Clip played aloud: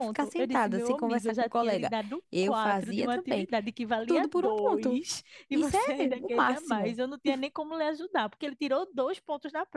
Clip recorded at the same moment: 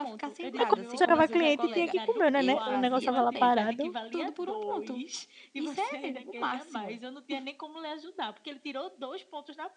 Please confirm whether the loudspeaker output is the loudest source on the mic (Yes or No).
No